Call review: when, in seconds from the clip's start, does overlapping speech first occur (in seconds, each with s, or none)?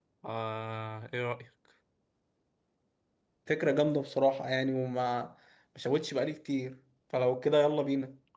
none